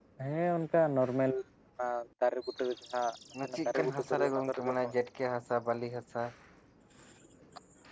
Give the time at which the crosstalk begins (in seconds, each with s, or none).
3.4 s